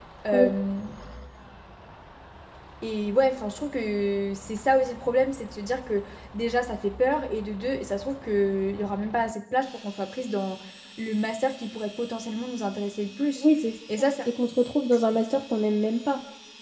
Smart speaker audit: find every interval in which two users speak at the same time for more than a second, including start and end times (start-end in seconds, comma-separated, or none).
none